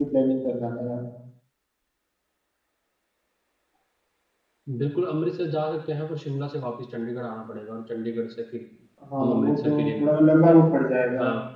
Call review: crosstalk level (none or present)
present